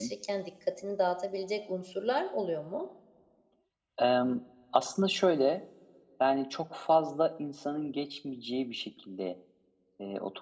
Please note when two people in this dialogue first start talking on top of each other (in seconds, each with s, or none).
none